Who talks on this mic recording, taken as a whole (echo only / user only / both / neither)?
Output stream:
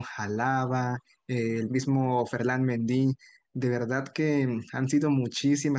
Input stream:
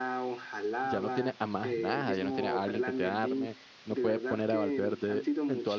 both